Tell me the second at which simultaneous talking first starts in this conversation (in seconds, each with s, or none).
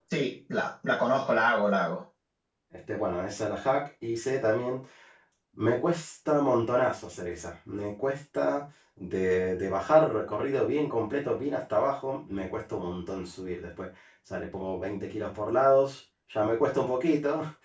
none